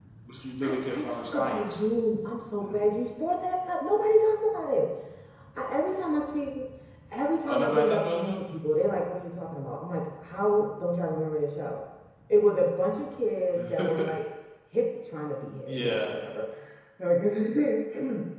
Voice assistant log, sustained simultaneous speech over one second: present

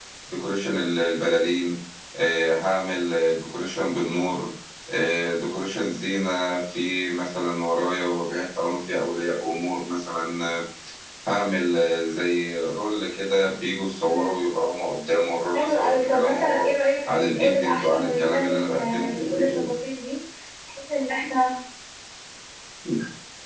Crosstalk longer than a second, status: present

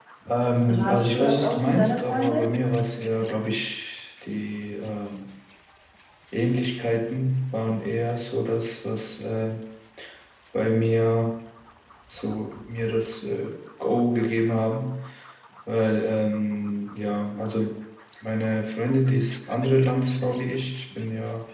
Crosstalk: present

